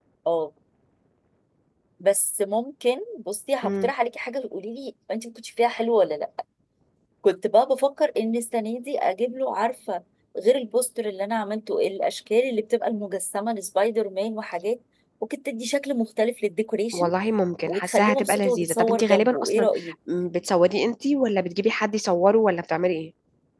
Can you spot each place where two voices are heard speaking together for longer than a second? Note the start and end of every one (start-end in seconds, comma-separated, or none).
17.7-19.7